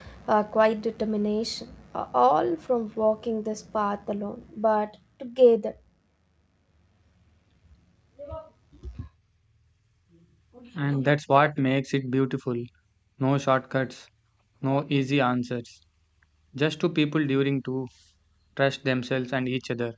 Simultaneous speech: No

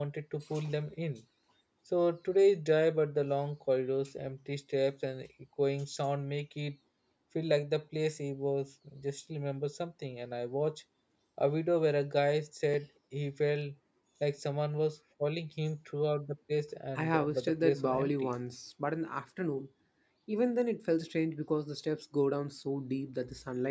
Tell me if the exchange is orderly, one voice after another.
No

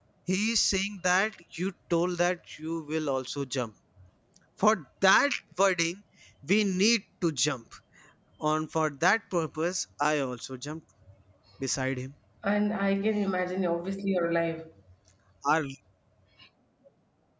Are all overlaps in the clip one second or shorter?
Yes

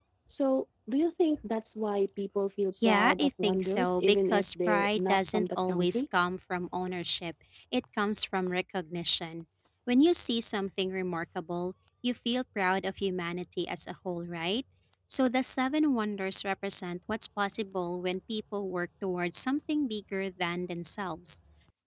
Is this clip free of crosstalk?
No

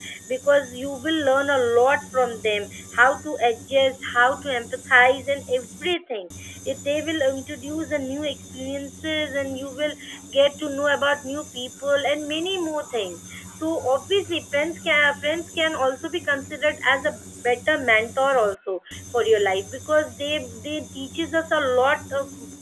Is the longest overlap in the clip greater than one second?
No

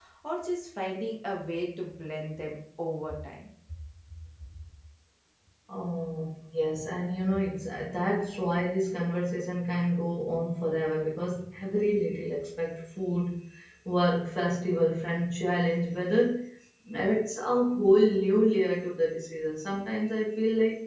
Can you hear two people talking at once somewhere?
No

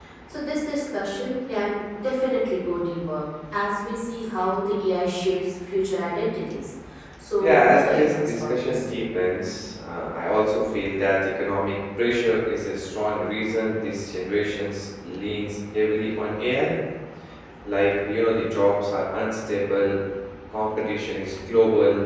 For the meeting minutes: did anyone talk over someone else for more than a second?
Yes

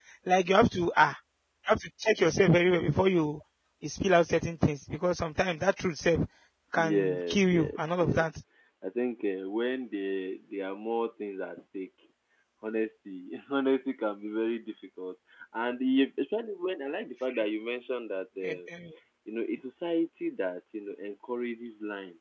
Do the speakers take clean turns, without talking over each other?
No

